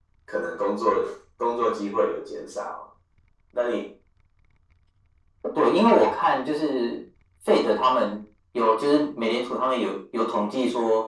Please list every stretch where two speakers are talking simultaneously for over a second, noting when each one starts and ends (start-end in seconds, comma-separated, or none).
none